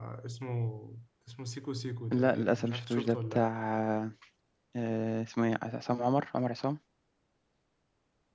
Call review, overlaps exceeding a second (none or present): present